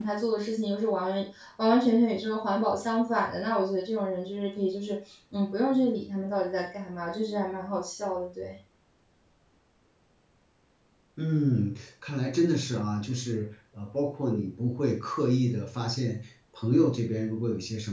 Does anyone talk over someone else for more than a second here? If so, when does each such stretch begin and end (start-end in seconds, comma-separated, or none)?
none